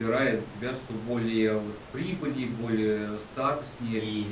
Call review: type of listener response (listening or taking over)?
taking over